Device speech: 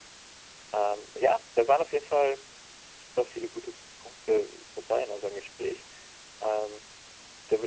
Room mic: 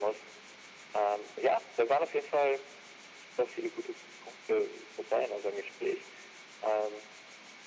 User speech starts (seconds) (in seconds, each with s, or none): none